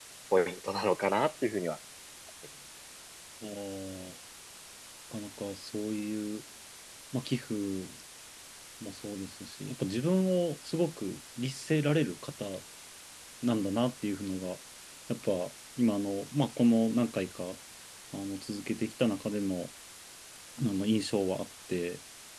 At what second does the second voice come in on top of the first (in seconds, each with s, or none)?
none